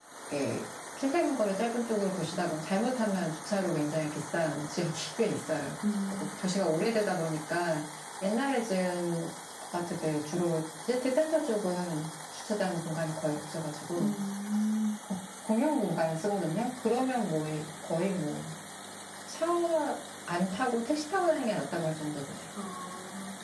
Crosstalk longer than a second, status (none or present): none